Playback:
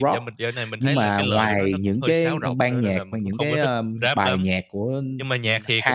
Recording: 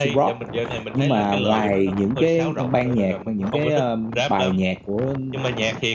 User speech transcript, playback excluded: none

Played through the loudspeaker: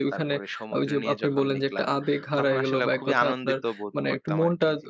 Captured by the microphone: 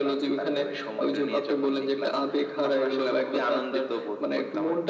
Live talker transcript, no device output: none

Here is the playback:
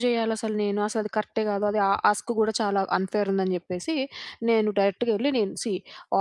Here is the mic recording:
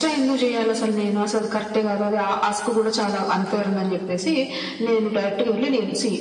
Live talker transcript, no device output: none

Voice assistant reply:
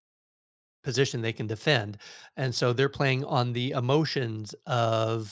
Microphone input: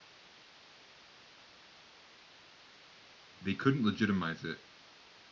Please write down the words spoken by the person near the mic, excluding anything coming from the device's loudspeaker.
they couldn't legitimize it

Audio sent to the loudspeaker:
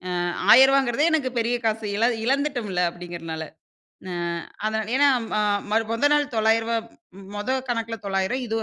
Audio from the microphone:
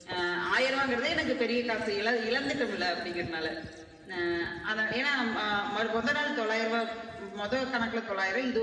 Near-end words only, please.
none

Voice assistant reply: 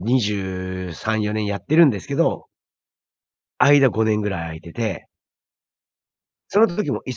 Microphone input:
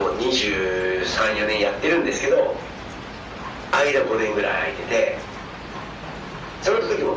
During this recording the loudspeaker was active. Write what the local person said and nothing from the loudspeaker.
none

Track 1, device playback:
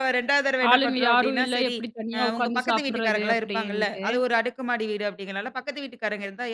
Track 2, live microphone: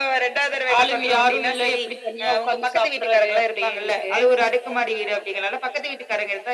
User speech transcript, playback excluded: none

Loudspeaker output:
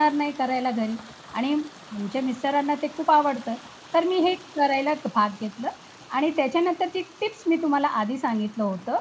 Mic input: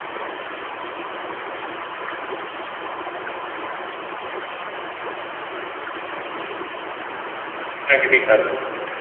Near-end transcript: अगदी खरं.

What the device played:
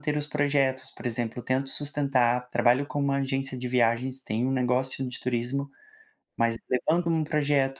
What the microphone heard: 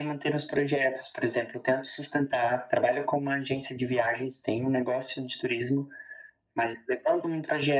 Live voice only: none

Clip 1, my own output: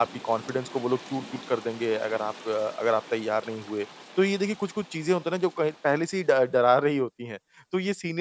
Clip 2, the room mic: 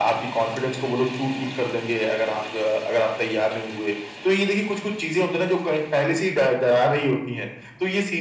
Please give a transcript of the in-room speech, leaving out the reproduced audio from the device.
none

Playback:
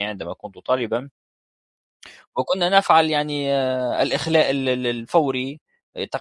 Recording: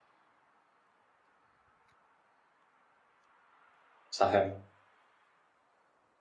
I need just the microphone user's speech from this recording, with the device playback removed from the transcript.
صحيح،

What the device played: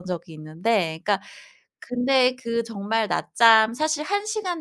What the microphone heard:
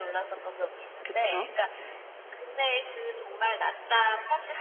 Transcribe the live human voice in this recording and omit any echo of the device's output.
그쵸.

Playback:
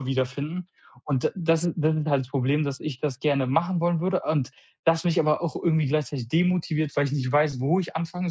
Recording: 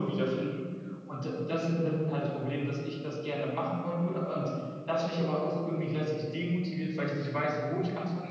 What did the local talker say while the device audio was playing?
none

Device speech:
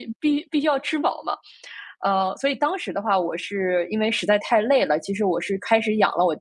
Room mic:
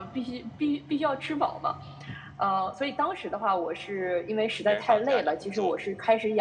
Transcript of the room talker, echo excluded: 别人放假，你工作，

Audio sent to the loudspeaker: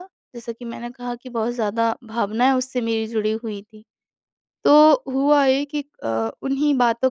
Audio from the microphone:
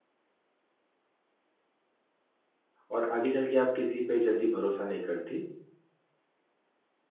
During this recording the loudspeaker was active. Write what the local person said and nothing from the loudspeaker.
और आगे चल के आप किसी पे जल्दी भरोसा नहीं करती।

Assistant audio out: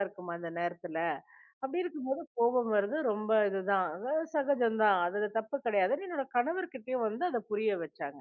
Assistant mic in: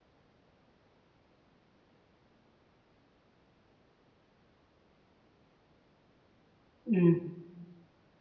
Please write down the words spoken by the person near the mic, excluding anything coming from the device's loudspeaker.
ம்.

